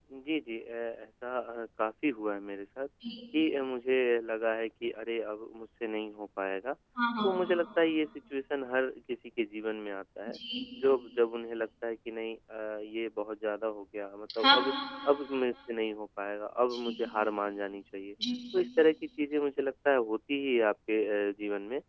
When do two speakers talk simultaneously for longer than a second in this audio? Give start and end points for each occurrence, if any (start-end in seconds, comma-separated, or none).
none